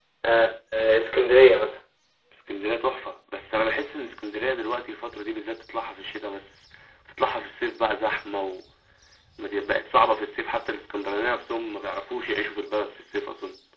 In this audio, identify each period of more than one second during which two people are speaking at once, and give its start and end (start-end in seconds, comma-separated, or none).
none